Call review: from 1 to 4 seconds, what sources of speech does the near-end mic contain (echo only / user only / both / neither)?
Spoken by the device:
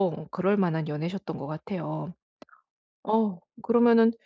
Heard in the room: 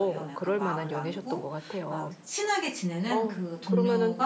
both